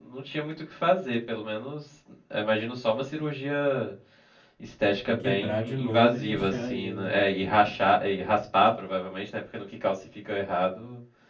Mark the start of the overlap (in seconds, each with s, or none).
5.0 s